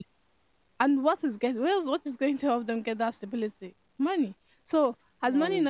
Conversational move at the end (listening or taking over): listening